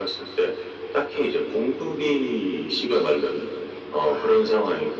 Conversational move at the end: listening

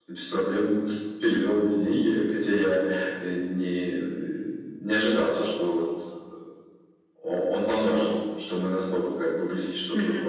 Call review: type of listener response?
listening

